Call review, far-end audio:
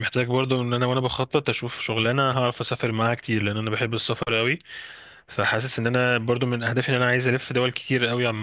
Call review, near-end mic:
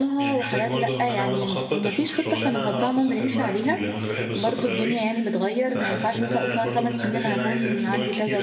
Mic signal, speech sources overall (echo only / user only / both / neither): both